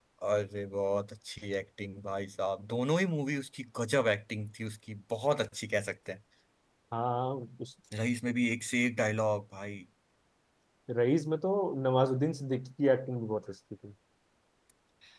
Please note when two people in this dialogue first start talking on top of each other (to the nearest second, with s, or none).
none